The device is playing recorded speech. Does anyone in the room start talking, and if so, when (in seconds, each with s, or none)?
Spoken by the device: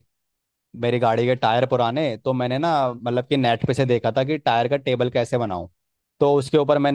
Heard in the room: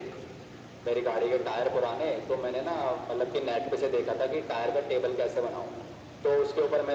none